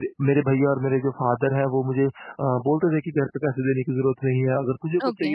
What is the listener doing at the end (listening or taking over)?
listening